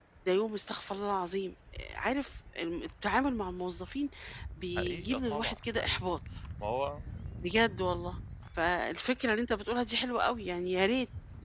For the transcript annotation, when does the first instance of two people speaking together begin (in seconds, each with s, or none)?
4.8 s